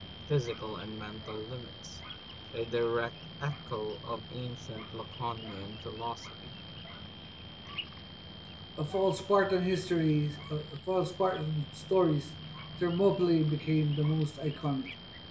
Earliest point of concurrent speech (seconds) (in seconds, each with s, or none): none